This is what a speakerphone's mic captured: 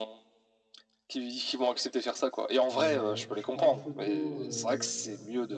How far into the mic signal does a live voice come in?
2.7 s

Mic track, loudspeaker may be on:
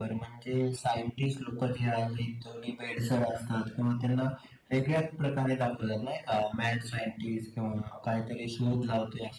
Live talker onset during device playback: none

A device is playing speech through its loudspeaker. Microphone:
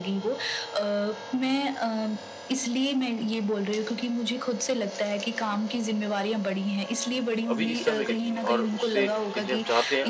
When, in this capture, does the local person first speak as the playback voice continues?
7.5 s

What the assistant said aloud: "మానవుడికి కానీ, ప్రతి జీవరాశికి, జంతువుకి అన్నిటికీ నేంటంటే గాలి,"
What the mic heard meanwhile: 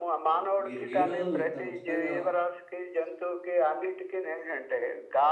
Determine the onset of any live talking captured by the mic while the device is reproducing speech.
0.4 s

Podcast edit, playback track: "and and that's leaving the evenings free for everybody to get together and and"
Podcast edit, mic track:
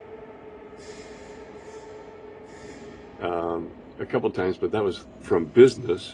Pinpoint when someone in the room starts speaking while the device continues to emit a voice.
3.2 s

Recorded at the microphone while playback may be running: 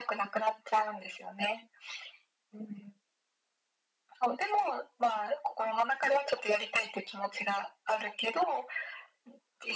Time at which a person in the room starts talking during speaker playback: none

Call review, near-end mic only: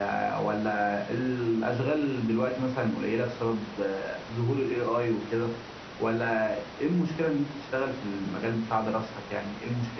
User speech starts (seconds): none

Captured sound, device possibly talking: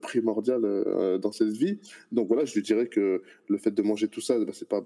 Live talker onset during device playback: none

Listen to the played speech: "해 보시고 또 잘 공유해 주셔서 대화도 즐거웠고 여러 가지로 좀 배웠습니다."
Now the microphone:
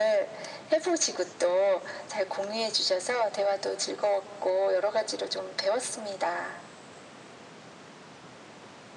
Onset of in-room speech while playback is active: none

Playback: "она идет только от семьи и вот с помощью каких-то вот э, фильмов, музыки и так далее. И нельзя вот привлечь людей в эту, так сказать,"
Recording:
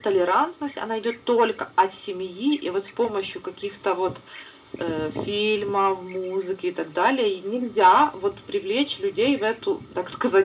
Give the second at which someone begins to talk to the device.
none

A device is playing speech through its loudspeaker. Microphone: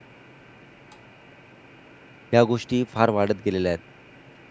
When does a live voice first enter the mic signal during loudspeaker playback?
2.3 s

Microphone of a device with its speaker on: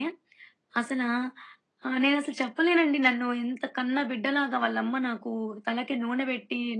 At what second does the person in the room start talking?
none

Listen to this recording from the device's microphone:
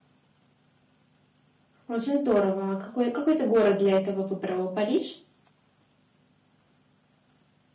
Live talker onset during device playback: 1.9 s

